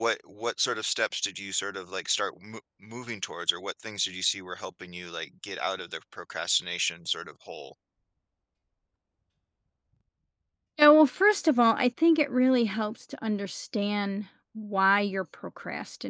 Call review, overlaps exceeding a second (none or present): none